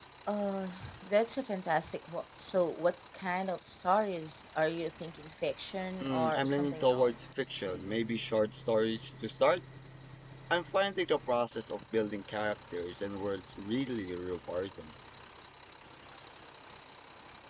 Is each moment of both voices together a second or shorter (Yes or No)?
No